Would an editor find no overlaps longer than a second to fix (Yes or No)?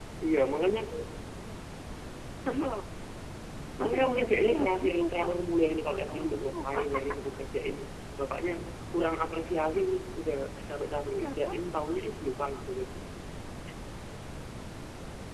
No